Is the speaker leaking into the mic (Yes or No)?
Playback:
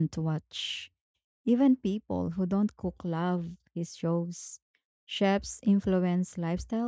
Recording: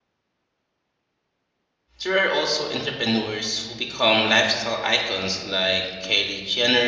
No